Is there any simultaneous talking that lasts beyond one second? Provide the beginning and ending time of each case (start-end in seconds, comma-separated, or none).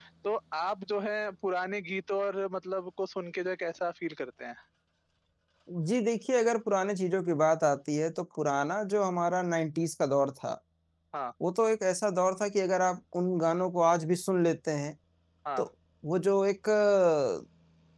none